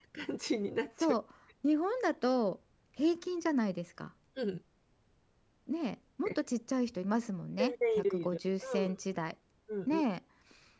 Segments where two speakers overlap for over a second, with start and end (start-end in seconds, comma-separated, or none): 7.6-9.0